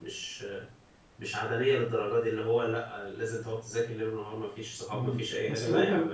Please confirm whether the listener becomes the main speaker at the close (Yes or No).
Yes